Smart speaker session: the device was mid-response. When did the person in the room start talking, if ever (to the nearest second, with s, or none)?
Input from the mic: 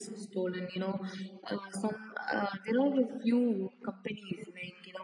none